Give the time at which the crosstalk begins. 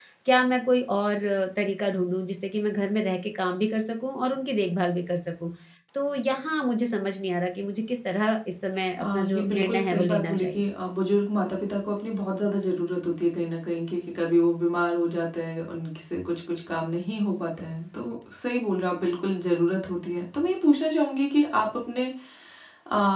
9 s

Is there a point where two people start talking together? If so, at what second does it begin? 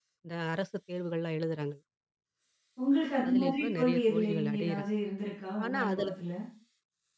3 s

